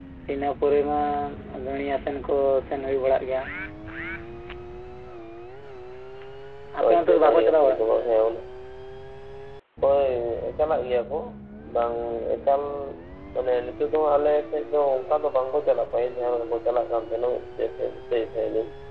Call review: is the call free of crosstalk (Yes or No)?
No